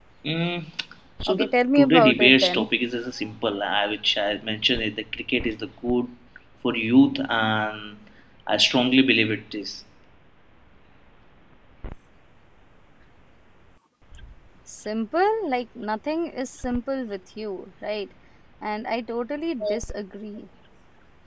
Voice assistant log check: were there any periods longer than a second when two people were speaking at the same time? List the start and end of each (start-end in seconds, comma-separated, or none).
1.3-2.7